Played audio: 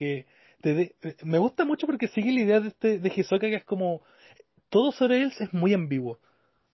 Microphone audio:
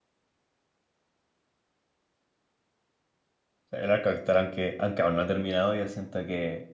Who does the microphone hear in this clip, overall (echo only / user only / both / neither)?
user only